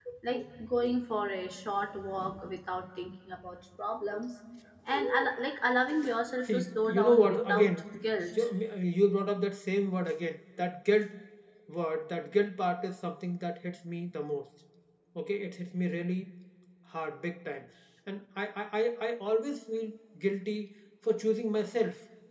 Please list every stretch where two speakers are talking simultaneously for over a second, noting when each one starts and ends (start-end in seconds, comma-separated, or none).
6.4-7.7